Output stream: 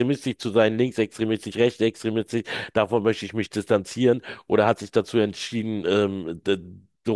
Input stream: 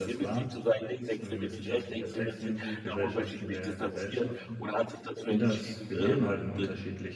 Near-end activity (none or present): present